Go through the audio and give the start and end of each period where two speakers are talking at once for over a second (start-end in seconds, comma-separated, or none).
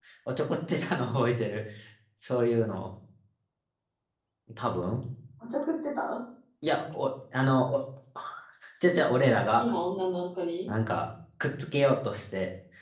none